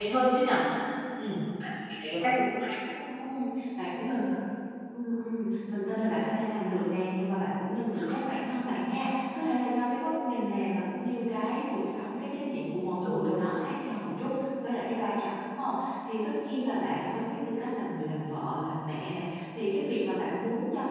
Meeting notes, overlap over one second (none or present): none